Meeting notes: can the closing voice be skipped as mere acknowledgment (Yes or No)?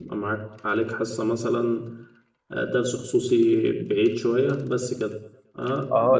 No